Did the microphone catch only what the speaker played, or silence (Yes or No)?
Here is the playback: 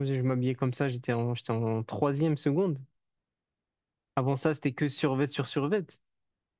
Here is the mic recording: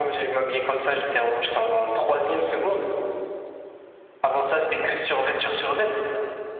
Yes